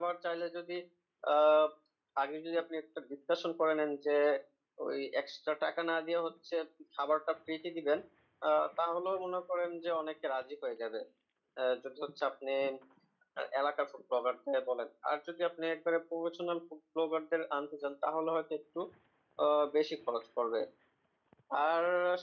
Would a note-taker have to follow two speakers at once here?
No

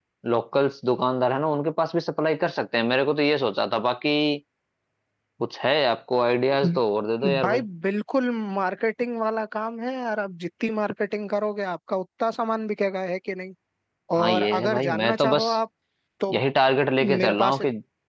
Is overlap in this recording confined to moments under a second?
No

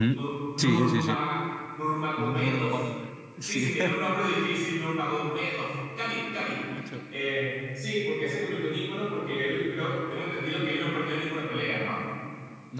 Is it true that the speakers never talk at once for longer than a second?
No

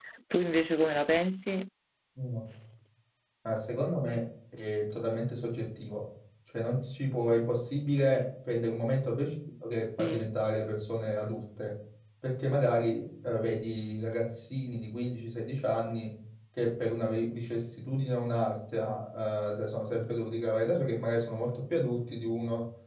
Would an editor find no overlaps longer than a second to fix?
Yes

